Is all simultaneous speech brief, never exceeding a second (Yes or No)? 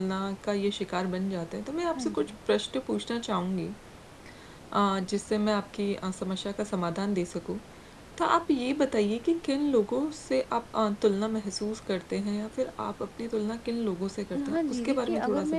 No